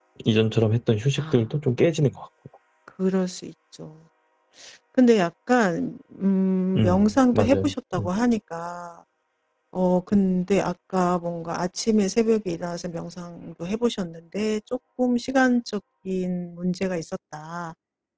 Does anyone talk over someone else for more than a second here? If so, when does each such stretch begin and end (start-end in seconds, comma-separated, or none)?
6.8-8.1